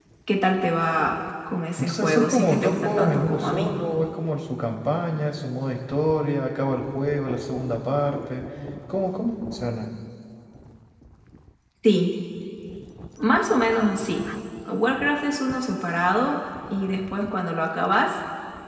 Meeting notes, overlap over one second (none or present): present